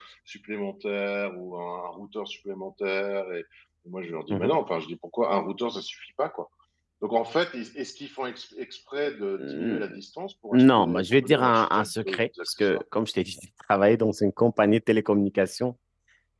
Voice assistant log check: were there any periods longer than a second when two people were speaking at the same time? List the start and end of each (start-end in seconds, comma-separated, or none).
10.5-12.8